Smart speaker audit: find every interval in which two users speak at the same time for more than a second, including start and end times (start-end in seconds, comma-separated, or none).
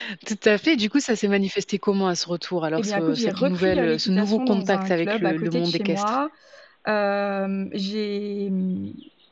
2.8-6.2